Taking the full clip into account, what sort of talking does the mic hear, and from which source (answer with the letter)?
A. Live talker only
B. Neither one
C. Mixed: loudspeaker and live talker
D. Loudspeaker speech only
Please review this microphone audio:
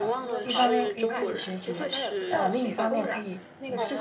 C